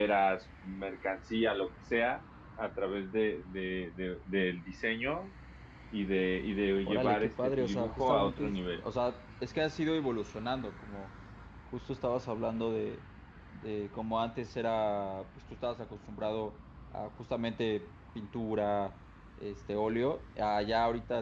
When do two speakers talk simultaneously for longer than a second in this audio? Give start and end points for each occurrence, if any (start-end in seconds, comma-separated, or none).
6.8-8.8